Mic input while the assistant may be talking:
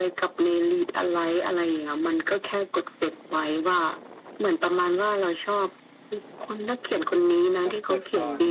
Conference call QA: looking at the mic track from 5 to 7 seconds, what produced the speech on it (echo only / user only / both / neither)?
echo only